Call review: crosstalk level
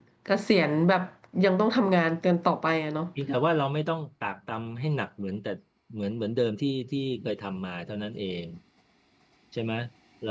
none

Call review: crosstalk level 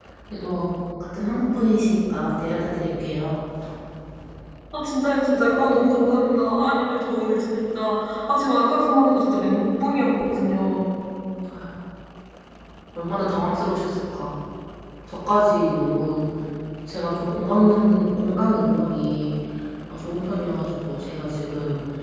none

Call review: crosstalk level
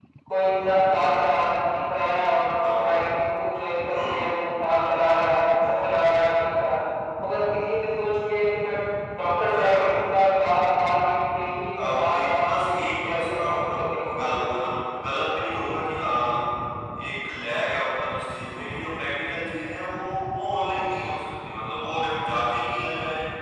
present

